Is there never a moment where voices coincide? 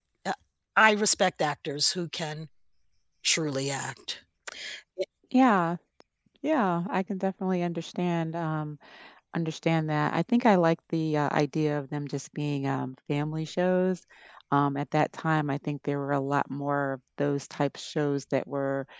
Yes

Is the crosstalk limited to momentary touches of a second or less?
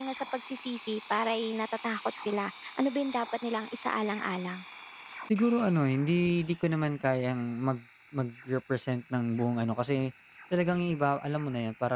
Yes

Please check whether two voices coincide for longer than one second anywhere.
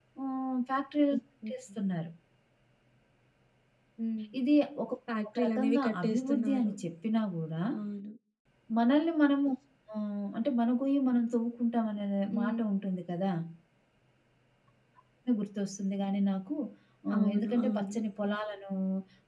Yes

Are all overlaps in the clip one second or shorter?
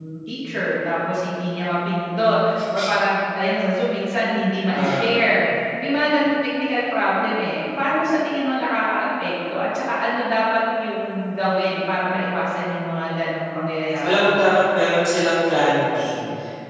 Yes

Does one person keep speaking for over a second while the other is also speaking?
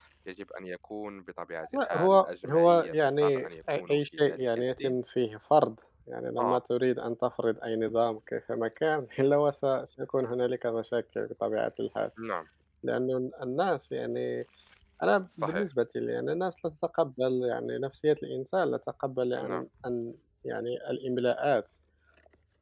Yes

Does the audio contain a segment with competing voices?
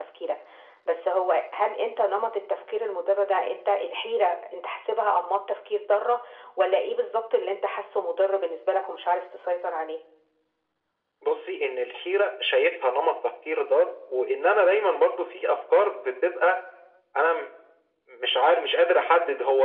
No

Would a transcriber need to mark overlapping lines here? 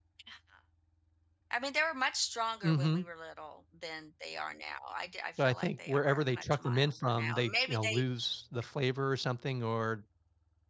Yes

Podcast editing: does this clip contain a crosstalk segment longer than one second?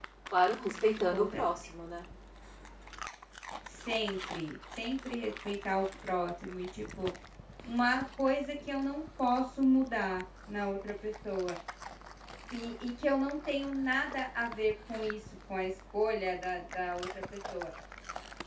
No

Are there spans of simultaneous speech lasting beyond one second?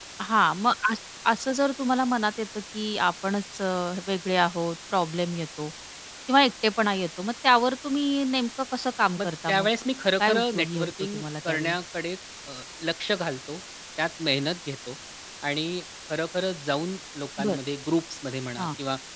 Yes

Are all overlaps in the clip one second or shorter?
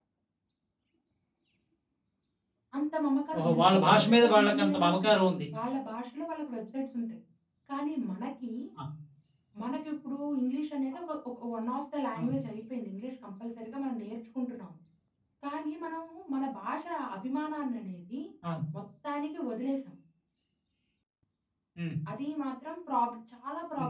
No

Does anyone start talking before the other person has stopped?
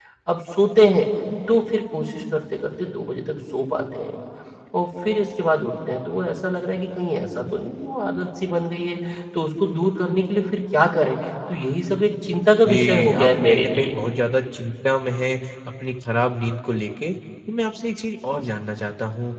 Yes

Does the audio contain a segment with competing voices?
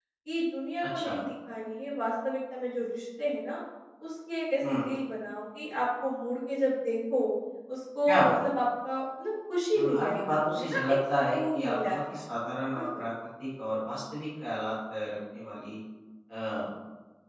Yes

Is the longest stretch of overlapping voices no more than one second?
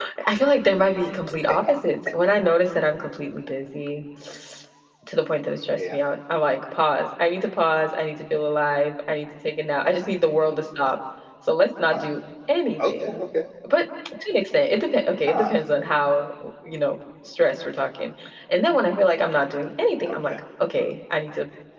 Yes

